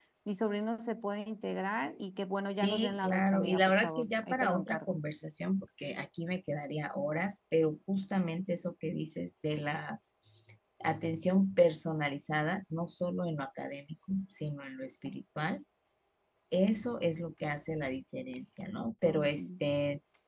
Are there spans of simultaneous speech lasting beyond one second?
Yes, from 2.6 s

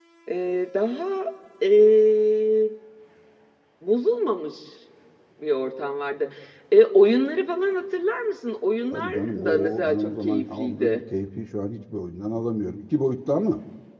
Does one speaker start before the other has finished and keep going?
Yes, from 8.9 s

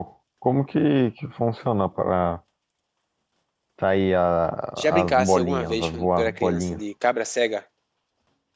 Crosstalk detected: Yes, from 5.0 s

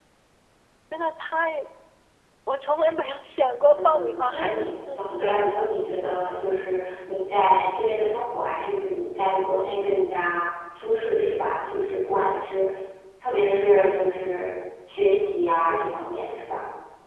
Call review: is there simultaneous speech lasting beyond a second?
Yes, from 3.7 s

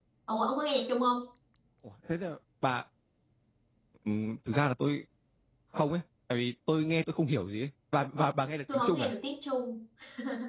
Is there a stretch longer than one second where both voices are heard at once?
No

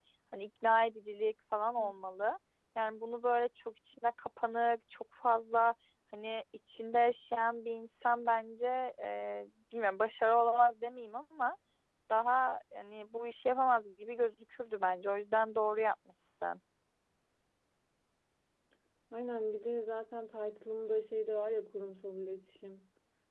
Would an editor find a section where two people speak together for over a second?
No

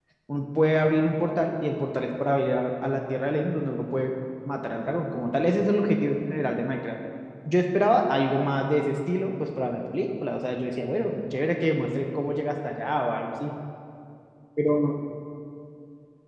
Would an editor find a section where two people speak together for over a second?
No

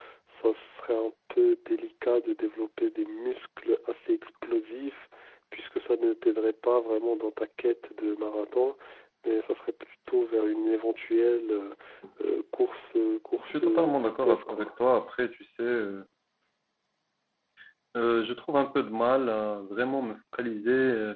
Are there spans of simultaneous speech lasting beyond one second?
Yes, from 13.4 s

